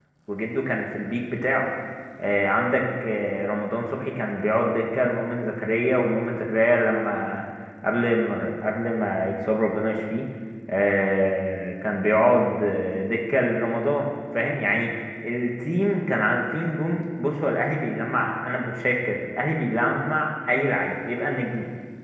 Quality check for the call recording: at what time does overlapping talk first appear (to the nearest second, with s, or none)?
none